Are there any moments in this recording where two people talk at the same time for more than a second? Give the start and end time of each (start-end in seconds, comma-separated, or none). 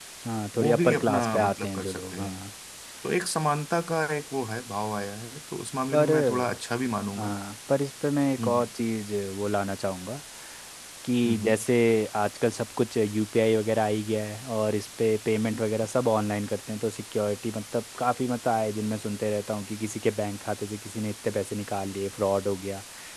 0.6-2.4